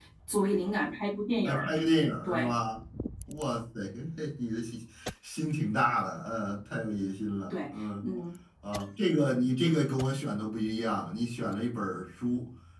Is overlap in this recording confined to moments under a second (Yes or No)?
Yes